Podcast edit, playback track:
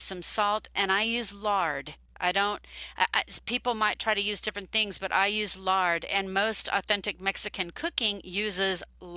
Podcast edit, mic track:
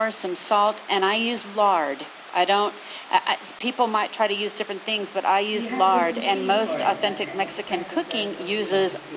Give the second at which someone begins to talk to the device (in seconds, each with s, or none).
5.5 s